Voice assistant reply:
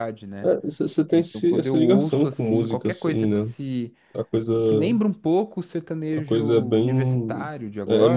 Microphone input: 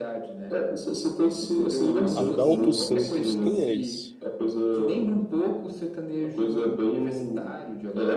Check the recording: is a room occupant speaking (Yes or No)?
Yes